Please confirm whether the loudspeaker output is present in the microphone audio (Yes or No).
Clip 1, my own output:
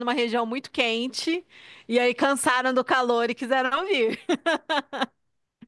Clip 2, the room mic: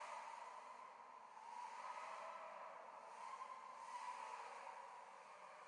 No